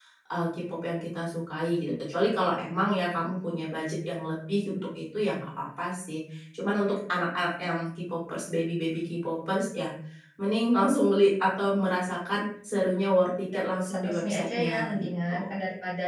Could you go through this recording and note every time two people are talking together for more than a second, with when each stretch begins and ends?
13.2-15.6

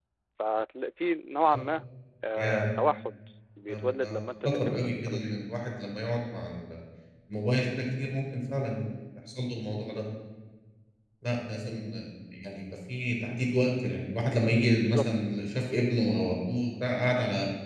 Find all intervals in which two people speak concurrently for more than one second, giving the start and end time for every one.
3.7-5.3

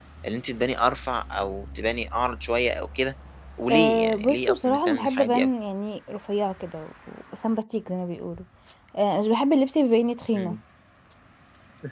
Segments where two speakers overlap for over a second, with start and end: 3.7-5.5

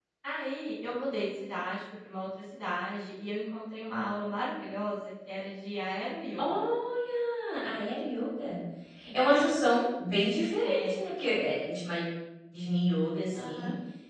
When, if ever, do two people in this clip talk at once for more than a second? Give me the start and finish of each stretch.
none

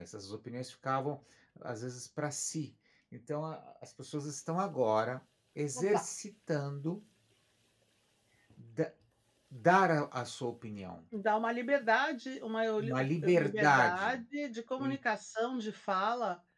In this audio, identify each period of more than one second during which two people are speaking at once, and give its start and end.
12.8-14.2

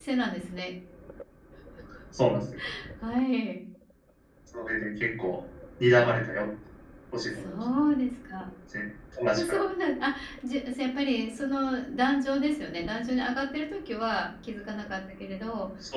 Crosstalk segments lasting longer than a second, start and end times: none

